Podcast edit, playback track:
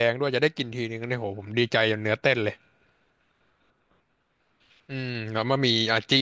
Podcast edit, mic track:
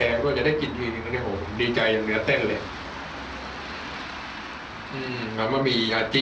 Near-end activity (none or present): none